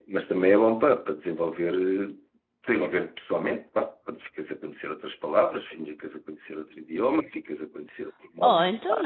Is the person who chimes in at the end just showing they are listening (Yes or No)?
No